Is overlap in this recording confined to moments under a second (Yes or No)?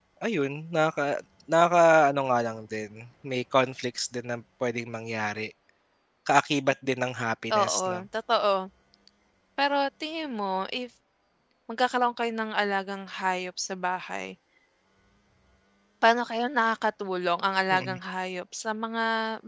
Yes